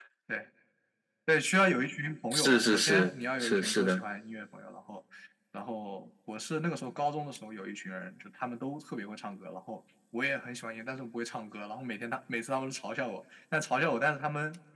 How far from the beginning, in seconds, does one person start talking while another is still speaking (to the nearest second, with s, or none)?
2 s